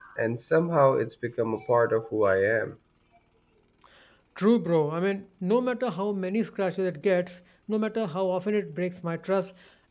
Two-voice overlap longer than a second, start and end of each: none

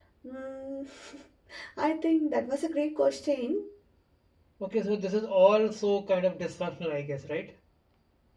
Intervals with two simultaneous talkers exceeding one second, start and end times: none

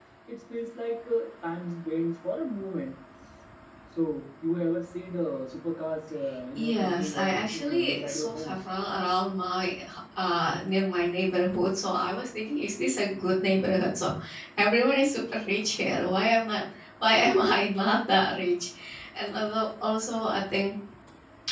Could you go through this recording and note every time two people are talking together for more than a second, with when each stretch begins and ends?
6.5-8.6

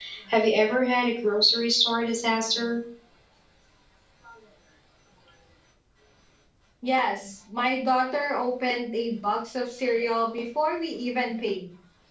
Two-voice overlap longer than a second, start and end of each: none

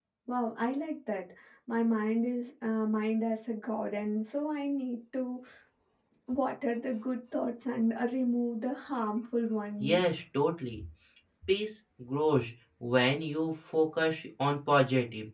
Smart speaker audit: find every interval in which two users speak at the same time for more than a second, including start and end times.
none

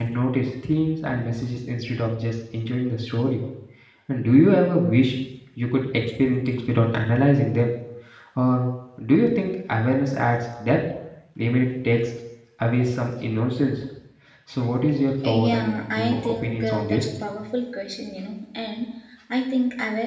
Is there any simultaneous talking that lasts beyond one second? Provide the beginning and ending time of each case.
15.2-17.1

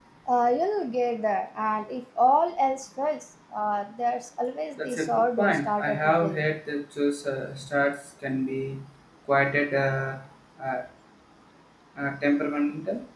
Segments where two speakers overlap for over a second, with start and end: 4.8-6.5

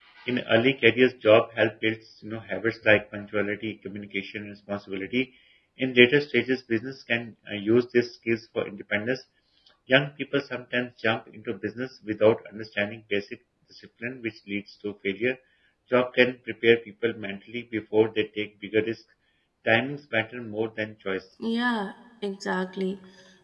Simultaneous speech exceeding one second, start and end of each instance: none

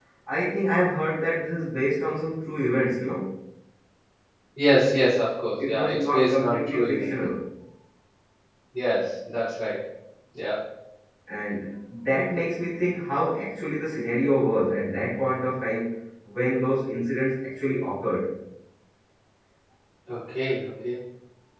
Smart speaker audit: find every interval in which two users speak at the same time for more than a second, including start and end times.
5.6-7.1

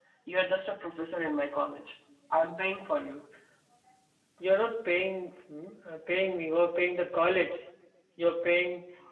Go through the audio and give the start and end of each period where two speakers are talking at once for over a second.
none

